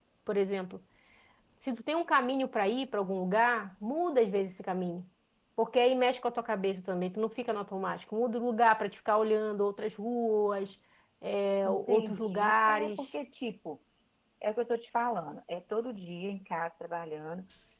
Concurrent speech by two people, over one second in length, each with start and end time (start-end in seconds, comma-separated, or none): 11.6-13.0